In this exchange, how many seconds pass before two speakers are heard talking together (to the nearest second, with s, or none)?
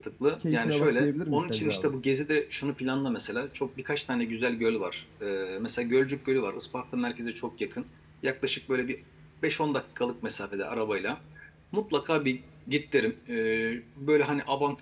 1 s